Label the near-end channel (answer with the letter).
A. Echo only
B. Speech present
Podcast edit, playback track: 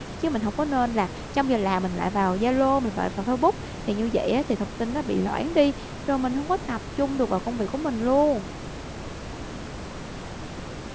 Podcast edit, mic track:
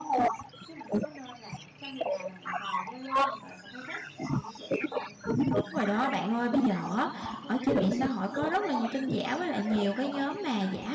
B